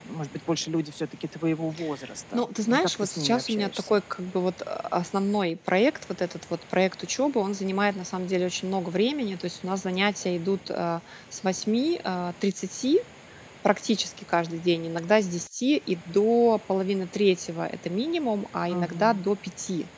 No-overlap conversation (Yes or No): No